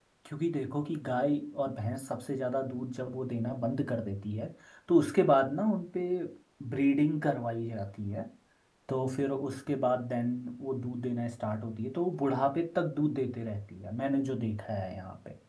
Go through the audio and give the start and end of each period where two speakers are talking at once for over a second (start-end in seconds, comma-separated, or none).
none